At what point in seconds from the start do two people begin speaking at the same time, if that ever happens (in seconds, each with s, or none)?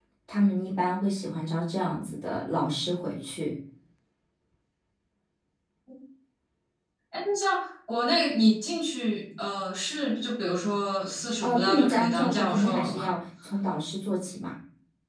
11.4 s